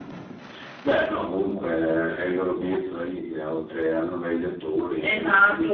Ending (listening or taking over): taking over